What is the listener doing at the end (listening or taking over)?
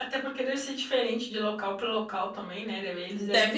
listening